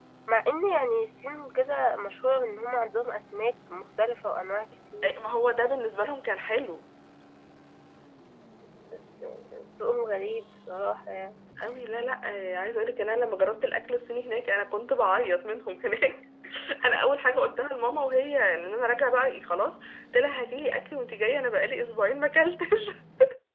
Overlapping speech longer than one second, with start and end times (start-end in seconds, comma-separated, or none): none